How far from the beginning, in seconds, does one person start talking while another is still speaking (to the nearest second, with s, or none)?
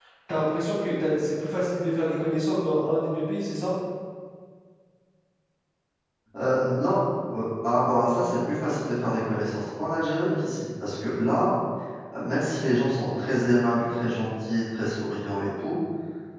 none